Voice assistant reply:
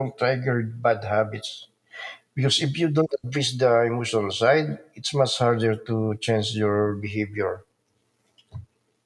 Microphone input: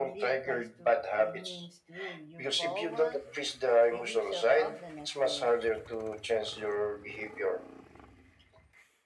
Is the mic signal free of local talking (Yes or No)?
No